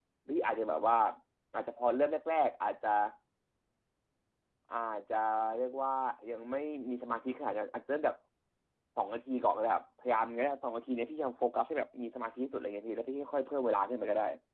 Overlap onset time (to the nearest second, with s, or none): none